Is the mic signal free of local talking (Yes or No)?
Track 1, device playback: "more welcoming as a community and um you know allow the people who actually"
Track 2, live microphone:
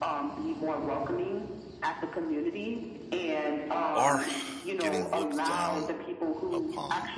No